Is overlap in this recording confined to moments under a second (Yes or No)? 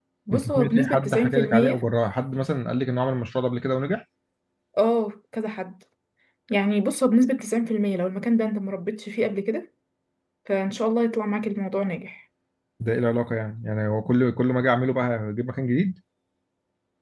No